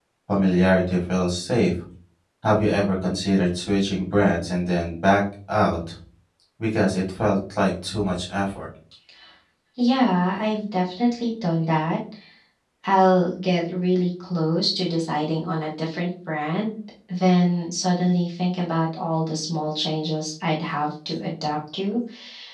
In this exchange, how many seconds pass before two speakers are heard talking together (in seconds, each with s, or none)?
none